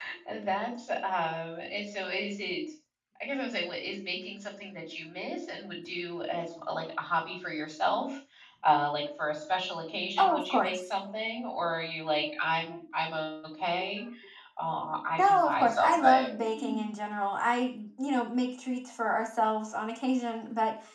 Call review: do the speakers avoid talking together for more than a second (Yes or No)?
No